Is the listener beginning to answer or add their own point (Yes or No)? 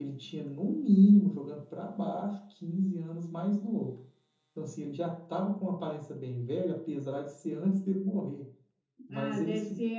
Yes